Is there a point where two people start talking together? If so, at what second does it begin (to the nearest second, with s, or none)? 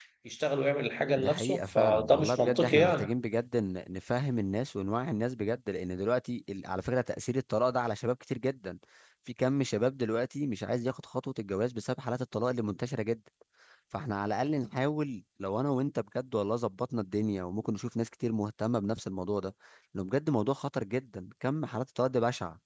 1 s